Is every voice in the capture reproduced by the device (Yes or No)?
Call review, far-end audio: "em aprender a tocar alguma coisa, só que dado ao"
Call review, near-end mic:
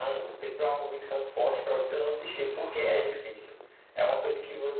No